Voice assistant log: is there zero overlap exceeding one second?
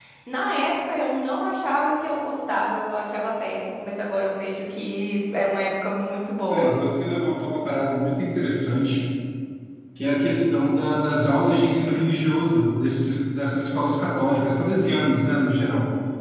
Yes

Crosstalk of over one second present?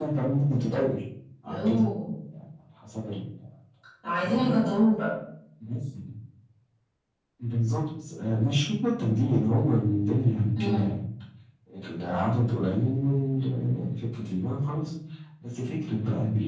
No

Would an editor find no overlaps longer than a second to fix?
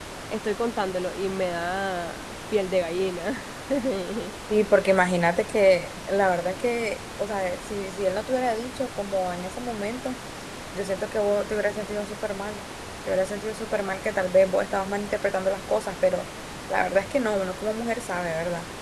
Yes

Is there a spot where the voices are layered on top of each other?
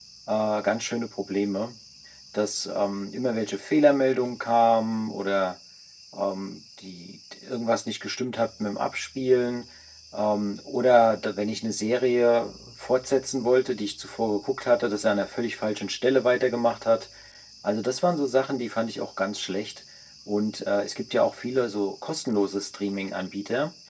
No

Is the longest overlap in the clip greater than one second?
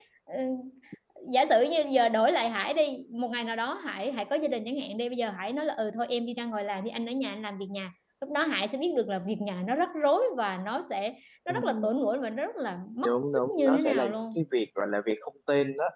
Yes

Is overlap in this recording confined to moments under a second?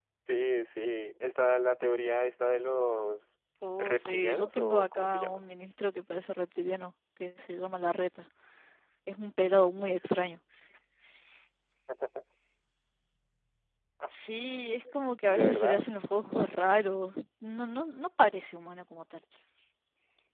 No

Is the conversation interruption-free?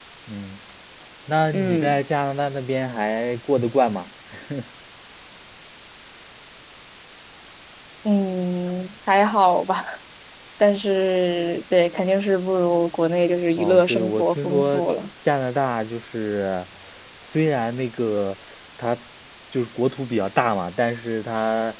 No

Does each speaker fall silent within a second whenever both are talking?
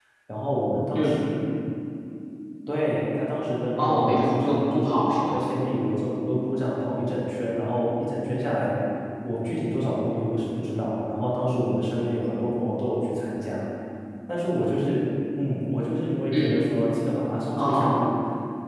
No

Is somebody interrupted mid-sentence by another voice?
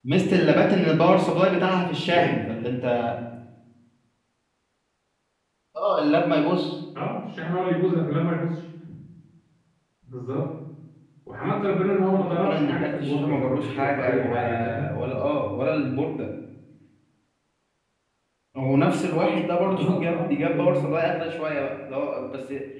Yes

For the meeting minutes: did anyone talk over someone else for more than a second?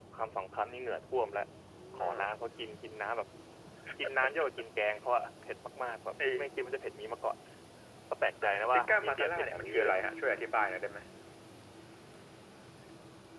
Yes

